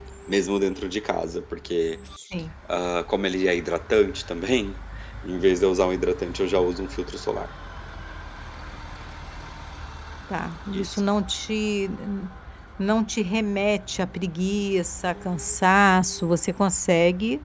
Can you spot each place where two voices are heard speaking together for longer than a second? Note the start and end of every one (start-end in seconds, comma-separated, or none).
none